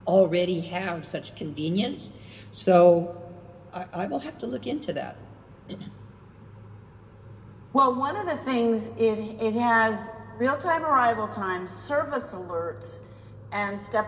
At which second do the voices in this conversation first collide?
none

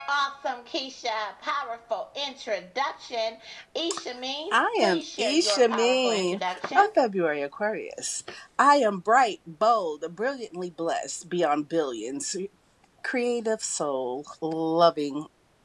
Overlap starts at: 4.5 s

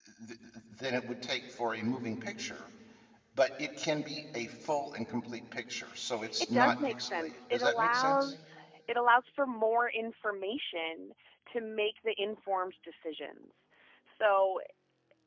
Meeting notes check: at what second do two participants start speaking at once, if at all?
6.5 s

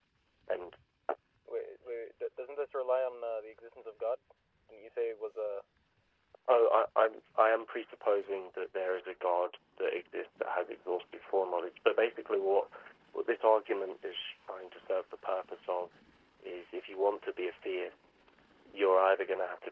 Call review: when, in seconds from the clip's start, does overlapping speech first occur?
none

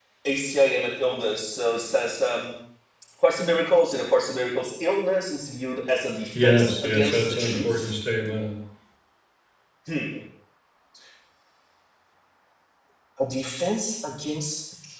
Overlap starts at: 6.3 s

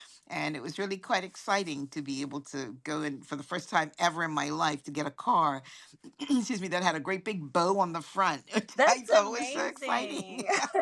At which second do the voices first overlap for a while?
8.8 s

